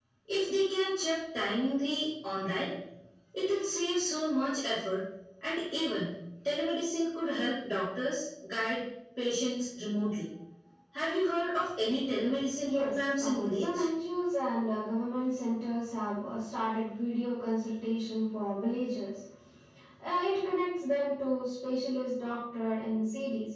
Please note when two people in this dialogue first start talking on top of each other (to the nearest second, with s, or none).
13 s